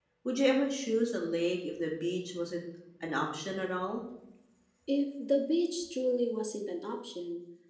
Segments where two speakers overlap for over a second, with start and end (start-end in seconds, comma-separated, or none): none